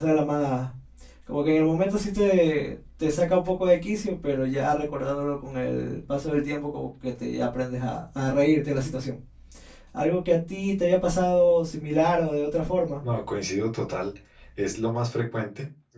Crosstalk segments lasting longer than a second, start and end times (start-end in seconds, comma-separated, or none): none